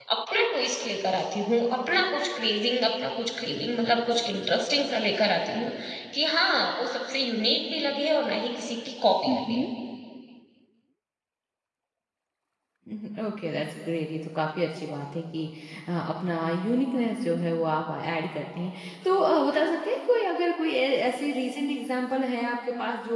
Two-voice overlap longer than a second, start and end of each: none

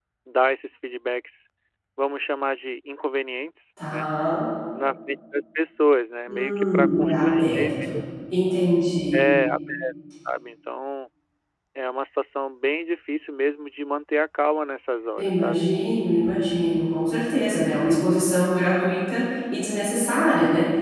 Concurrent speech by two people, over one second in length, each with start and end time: 6.3-7.9

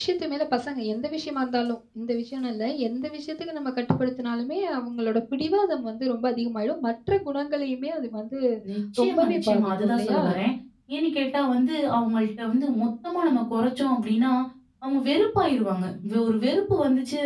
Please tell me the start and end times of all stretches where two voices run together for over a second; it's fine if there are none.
9.0-10.2

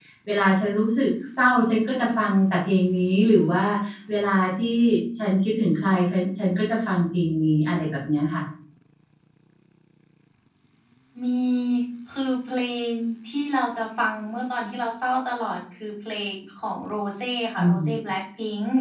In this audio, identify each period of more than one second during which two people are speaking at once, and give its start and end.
none

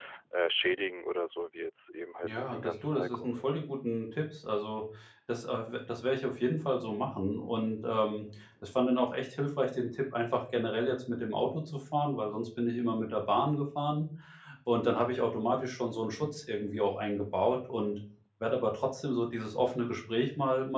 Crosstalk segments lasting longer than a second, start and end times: 2.3-3.5

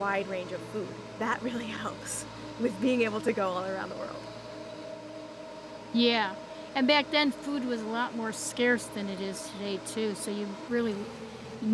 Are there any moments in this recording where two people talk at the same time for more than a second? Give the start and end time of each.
none

